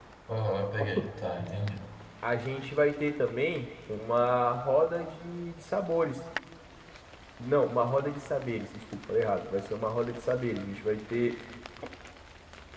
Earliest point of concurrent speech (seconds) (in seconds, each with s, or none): none